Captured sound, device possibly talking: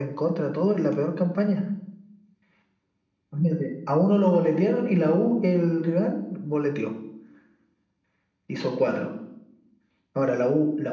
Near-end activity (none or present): none